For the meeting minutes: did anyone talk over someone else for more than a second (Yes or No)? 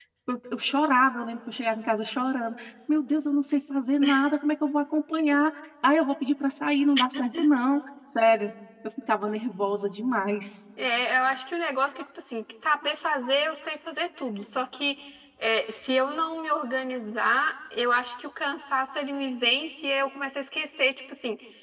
No